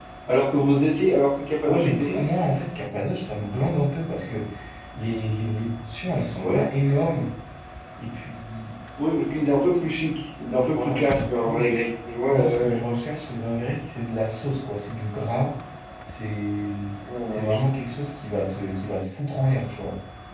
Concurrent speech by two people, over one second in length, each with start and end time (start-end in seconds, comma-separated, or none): 10.5-11.8